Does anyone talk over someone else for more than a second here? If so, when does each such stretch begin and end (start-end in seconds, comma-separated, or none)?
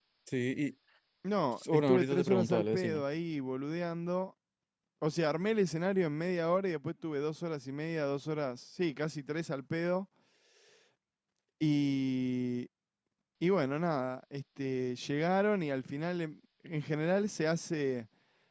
1.7-3.0